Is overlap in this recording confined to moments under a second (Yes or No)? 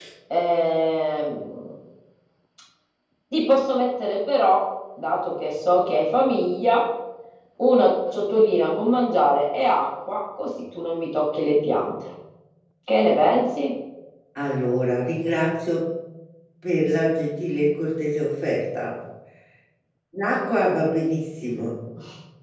Yes